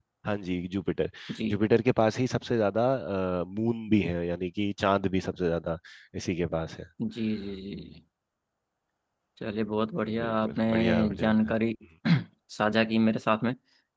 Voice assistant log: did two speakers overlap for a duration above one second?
Yes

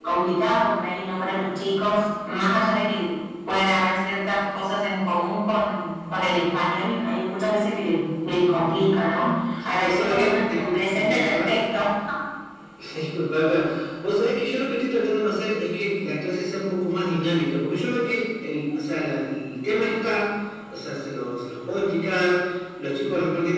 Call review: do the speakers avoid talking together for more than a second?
No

